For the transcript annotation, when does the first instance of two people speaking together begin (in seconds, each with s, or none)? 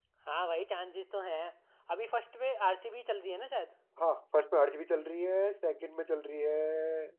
none